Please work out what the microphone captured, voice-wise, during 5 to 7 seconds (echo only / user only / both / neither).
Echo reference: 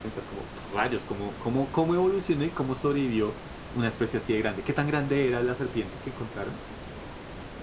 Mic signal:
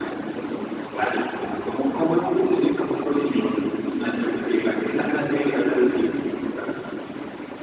echo only